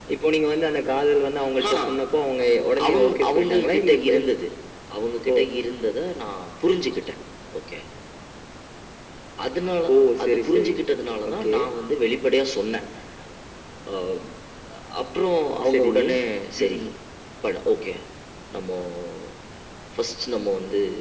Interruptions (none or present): present